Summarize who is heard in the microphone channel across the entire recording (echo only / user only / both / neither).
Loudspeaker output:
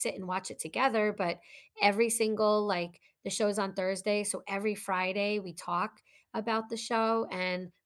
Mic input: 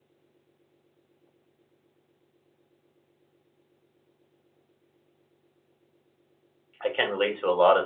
user only